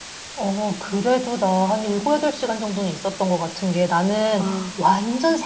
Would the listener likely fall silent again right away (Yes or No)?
Yes